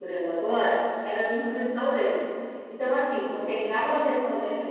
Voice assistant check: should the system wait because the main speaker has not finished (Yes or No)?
Yes